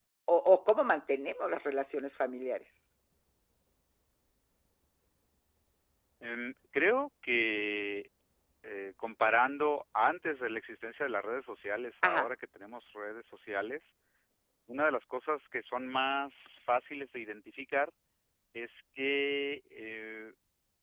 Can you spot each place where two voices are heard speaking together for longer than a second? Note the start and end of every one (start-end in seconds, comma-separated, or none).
none